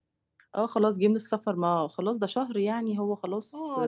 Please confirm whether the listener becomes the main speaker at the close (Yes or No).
Yes